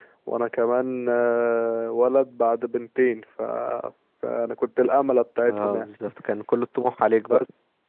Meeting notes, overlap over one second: none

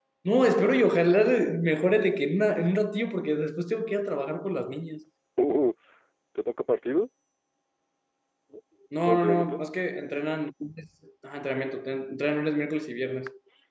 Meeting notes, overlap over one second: none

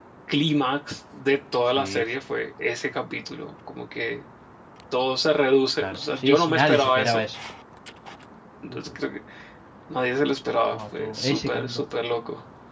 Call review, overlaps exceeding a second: present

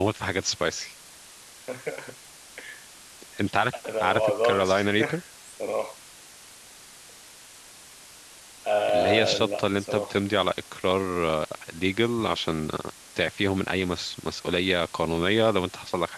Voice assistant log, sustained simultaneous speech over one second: present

